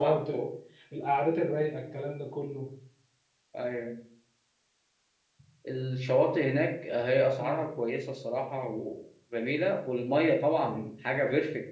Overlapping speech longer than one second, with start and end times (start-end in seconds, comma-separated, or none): none